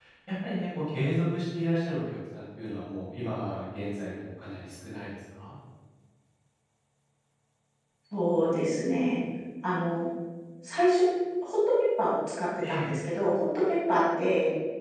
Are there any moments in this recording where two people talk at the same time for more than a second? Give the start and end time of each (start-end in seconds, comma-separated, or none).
none